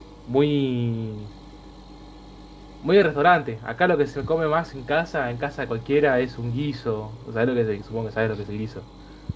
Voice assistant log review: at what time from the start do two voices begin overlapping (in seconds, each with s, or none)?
none